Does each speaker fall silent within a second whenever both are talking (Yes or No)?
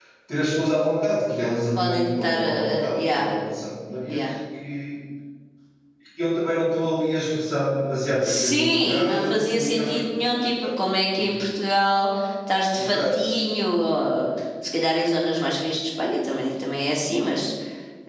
No